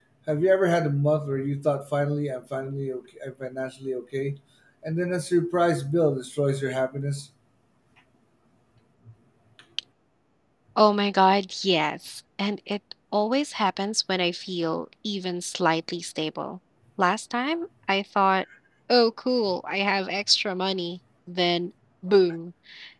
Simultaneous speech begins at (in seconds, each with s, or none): none